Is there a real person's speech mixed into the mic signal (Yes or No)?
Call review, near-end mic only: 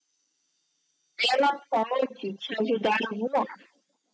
No